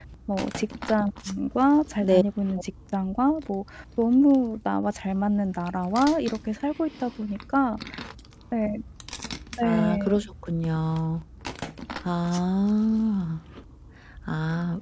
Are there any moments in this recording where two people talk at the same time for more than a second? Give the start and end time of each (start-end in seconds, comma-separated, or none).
none